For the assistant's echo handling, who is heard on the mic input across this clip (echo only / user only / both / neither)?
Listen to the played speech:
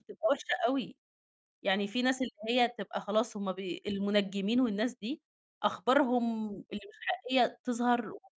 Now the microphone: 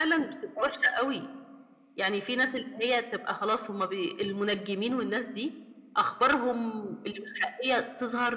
echo only